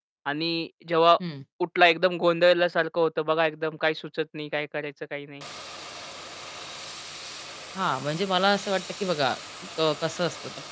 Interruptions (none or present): none